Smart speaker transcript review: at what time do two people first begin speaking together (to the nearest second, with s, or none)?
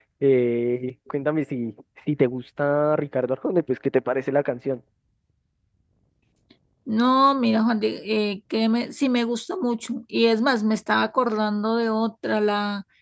none